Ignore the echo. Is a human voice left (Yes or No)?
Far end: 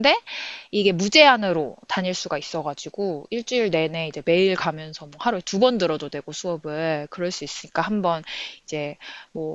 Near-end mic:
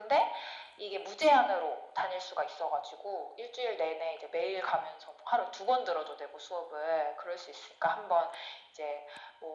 No